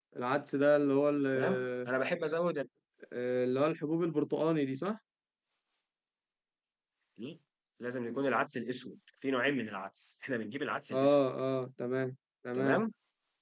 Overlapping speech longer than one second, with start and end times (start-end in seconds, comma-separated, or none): none